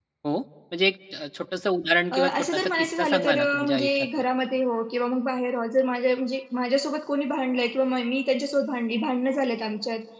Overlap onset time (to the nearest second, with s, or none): 2 s